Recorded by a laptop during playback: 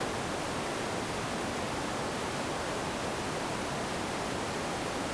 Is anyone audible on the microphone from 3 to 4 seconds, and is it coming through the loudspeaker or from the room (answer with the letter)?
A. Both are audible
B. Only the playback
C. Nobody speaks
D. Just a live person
C